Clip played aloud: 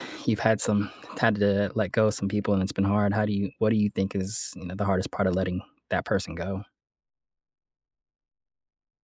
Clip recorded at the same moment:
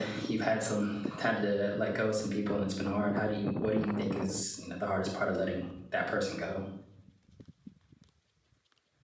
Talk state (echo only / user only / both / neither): echo only